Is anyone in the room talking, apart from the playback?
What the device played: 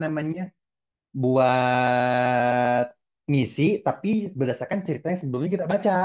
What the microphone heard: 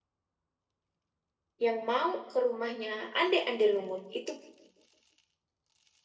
Yes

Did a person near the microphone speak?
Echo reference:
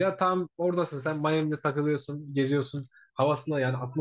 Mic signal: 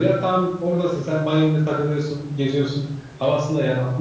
No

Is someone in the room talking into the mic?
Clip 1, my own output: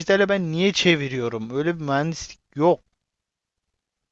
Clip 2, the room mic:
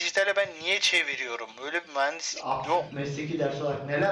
Yes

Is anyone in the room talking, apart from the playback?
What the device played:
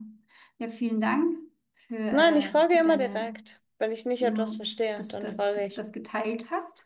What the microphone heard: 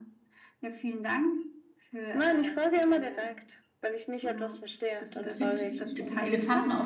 Yes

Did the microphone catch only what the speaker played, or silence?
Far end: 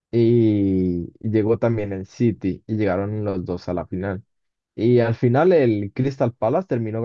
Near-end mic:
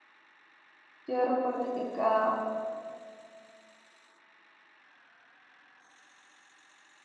No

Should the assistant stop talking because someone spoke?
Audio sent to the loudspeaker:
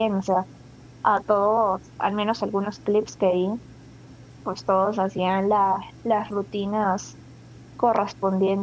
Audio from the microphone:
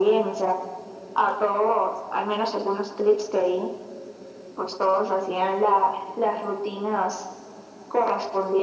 No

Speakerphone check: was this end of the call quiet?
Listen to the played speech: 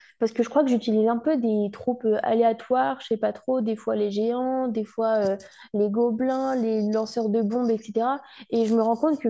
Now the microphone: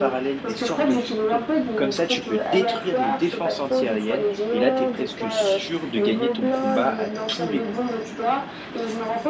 No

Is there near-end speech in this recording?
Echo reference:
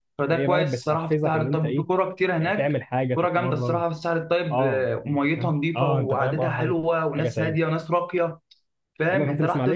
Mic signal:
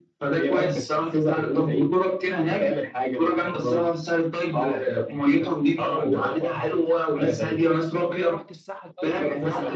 Yes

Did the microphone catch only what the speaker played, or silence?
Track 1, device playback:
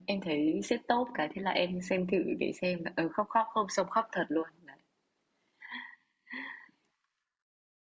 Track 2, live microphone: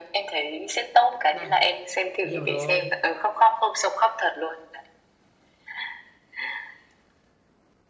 No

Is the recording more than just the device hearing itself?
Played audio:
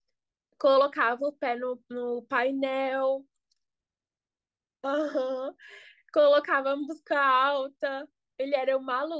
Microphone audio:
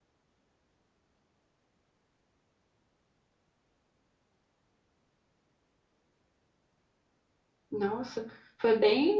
Yes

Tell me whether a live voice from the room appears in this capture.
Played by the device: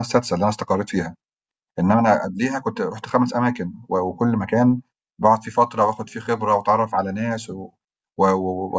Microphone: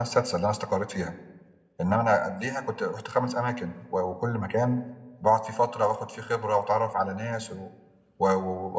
No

